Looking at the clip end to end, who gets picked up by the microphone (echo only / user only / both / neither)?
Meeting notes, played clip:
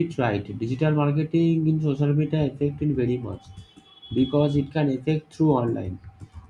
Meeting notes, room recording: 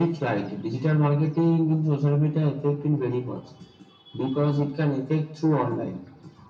echo only